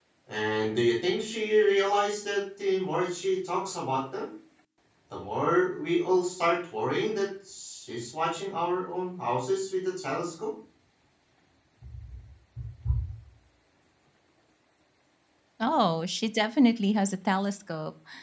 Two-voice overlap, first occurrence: none

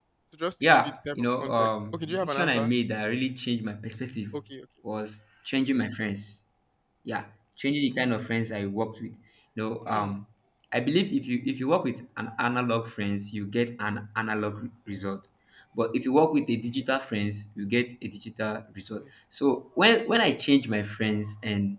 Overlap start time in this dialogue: 0.7 s

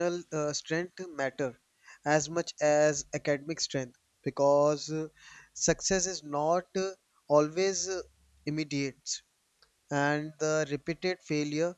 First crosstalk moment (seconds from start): none

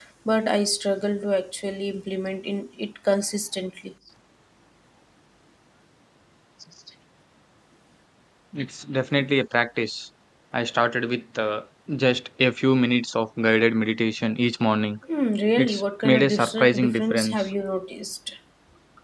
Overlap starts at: 15.6 s

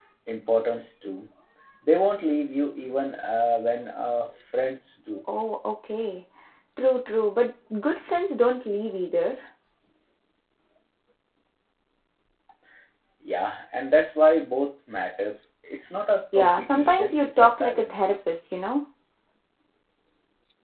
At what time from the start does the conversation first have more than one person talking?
16.3 s

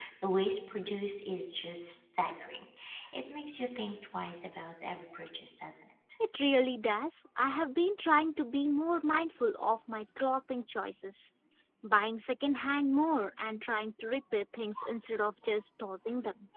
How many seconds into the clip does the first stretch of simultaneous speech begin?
none

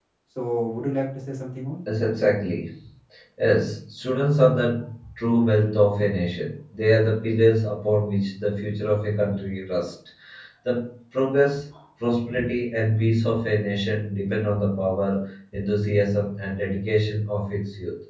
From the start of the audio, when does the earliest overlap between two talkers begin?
none

